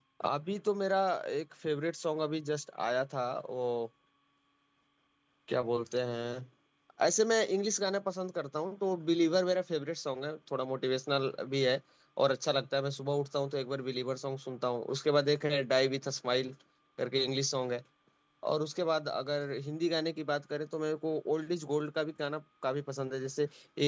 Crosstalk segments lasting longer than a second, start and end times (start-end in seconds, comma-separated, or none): none